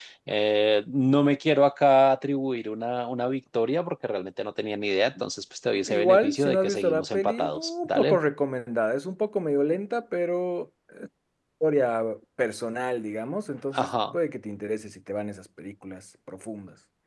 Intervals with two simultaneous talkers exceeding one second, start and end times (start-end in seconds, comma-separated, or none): 5.9-8.2